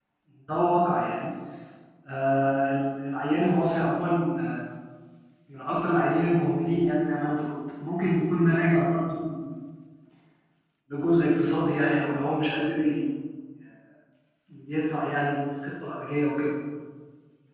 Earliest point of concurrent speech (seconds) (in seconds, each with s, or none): none